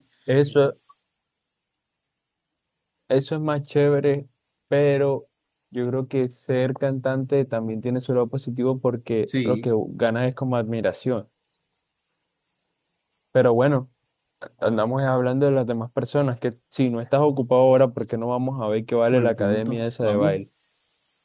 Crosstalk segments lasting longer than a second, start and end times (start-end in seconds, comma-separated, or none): 19.1-20.4